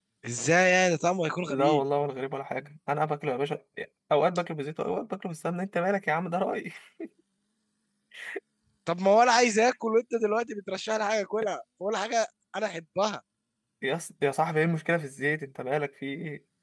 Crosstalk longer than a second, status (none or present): none